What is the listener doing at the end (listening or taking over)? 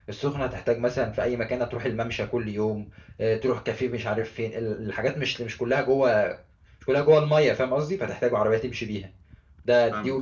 listening